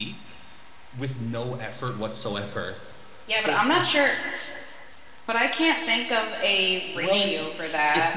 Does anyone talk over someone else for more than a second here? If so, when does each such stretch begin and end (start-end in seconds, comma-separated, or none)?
none